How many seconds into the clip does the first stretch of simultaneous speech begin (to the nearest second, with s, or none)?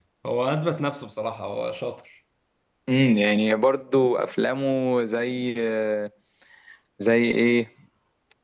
none